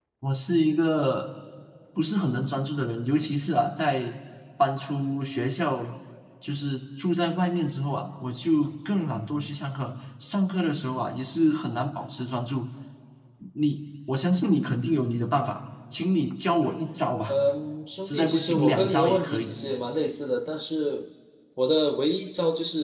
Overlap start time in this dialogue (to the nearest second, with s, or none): 18 s